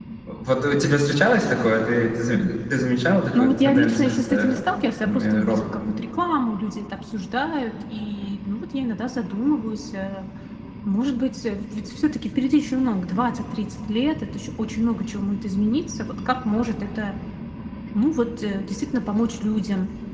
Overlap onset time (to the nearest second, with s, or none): 3 s